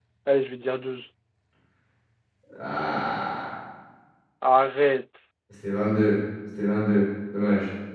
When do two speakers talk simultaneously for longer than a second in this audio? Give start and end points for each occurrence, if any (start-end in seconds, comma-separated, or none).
none